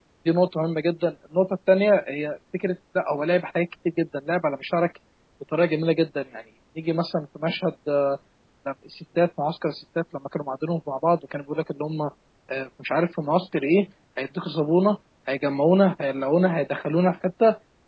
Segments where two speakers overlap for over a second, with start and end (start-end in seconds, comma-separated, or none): none